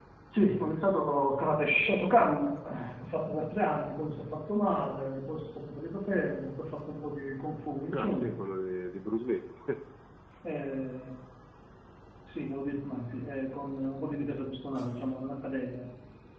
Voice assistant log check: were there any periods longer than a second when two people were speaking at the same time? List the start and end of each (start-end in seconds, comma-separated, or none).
none